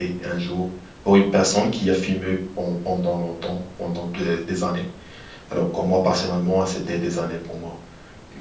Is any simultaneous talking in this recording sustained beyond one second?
No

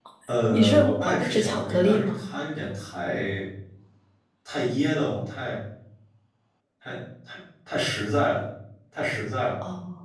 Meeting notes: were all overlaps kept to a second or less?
No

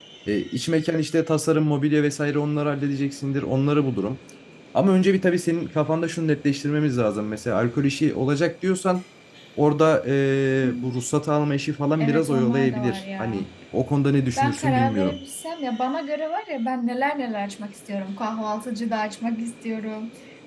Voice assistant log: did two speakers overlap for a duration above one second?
Yes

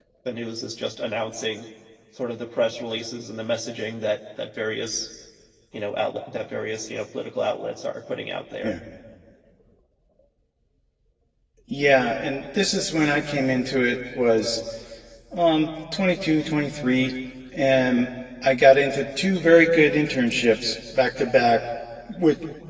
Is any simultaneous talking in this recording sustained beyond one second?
No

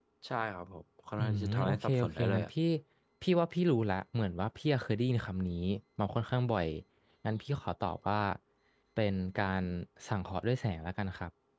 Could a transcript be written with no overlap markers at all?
No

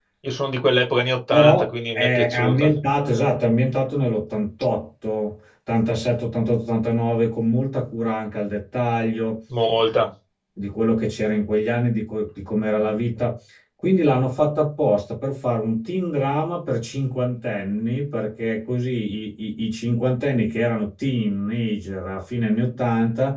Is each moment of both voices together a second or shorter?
No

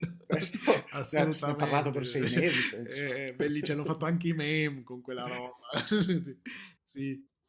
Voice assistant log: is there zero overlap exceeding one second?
No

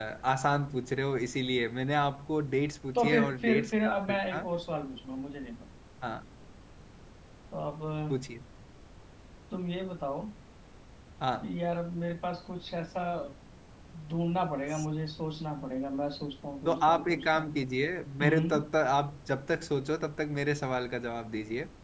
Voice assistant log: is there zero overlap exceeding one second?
No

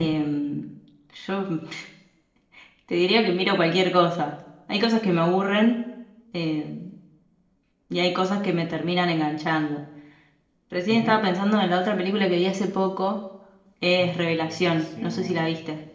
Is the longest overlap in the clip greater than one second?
Yes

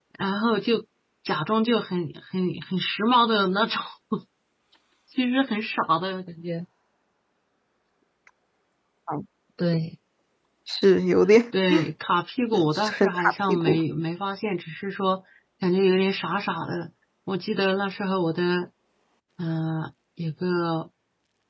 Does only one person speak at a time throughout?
No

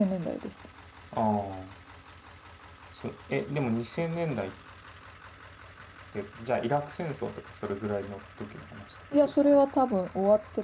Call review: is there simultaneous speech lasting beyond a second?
No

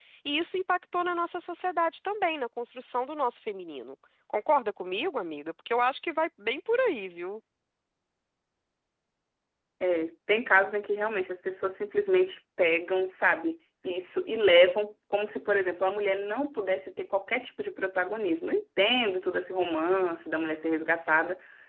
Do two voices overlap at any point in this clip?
No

